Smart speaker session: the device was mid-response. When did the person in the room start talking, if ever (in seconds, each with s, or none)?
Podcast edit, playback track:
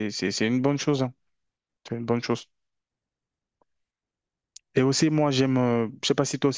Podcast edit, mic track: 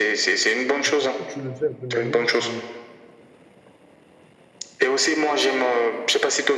0.8 s